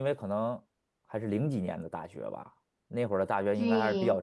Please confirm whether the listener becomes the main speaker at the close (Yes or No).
No